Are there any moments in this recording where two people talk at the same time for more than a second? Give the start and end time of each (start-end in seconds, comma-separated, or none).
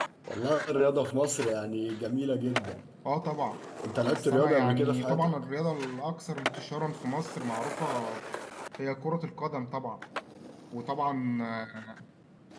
4.0-5.3